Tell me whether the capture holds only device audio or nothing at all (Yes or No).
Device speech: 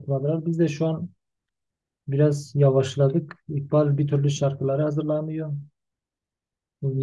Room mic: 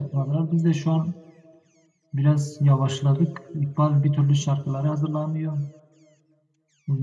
Yes